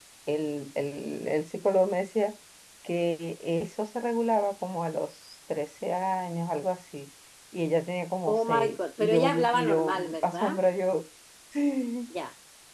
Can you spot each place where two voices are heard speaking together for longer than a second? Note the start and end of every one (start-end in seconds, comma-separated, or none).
8.3-10.6